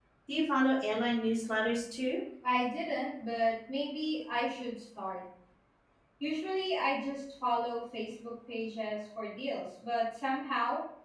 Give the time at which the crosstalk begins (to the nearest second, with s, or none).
none